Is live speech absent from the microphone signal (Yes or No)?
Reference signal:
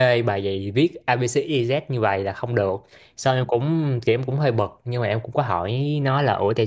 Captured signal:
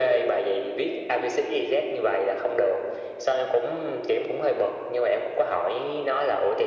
Yes